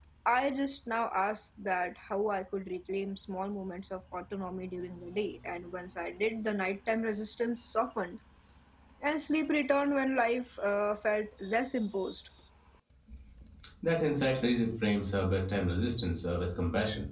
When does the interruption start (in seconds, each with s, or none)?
none